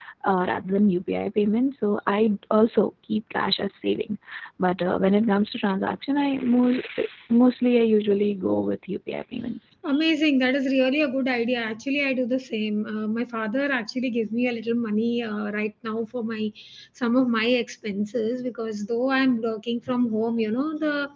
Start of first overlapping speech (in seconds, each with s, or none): none